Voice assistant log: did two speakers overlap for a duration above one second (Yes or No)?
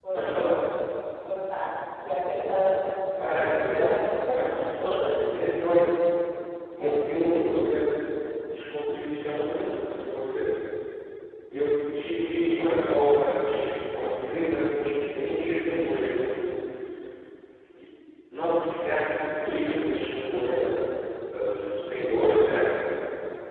Yes